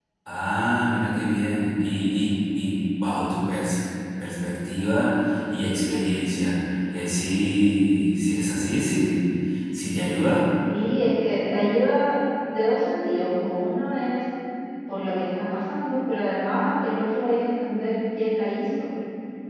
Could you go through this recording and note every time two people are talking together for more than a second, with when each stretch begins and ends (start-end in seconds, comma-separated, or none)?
none